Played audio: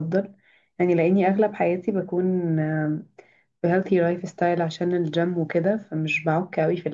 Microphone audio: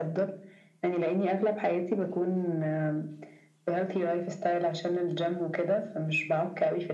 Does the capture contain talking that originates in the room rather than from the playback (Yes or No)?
No